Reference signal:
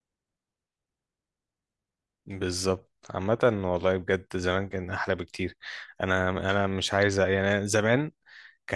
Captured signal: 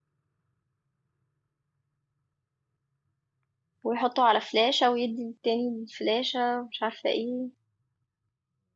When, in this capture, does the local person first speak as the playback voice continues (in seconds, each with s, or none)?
3.8 s